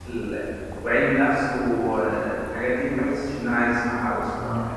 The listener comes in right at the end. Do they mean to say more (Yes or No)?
Yes